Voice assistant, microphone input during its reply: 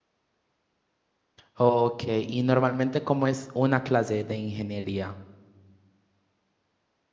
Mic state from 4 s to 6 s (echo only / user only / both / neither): user only